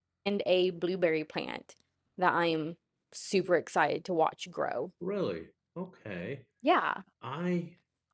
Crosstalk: none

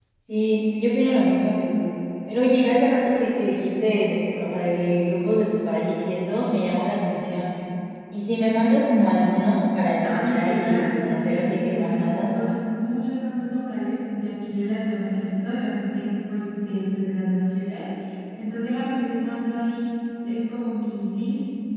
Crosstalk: present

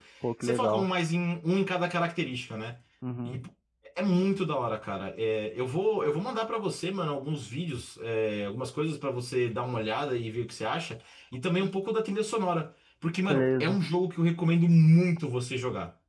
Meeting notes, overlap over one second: none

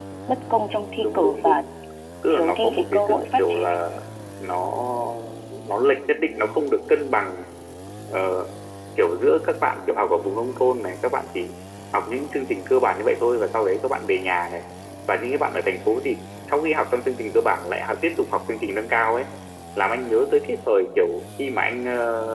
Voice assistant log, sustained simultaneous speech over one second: present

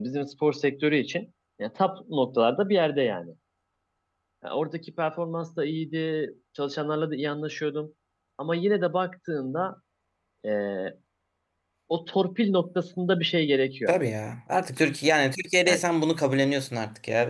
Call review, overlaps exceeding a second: none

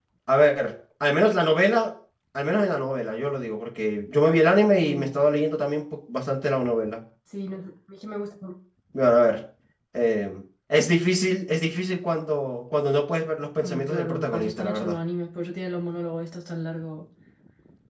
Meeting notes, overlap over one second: present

